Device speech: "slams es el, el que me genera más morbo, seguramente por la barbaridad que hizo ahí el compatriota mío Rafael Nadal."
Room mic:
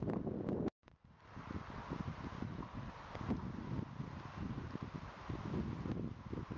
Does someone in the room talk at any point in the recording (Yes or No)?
No